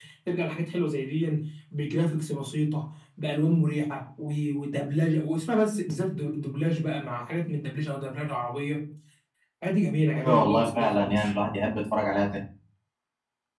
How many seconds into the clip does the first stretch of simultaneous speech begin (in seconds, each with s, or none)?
10.1 s